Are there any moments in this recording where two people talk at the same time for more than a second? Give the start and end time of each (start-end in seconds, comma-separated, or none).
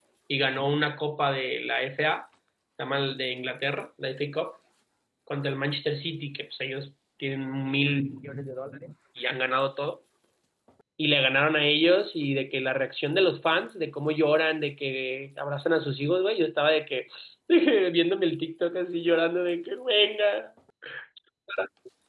none